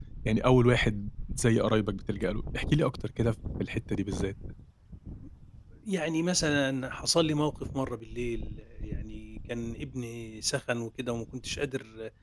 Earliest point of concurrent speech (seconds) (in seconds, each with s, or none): none